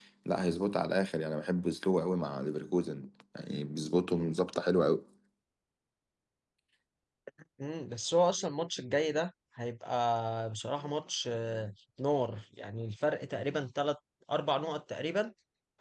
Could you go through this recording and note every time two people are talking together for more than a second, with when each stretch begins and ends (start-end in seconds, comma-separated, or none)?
none